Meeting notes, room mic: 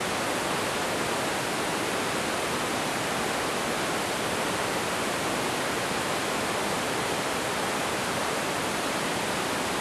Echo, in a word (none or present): none